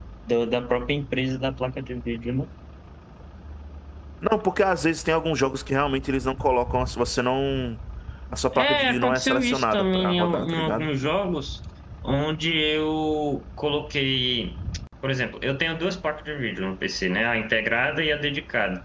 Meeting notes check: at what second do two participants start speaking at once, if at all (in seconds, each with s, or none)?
8.5 s